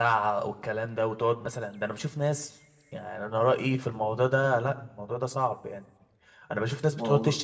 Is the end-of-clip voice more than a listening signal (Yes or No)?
No